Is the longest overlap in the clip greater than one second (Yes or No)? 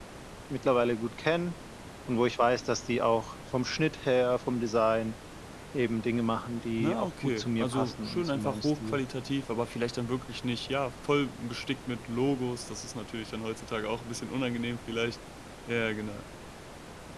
Yes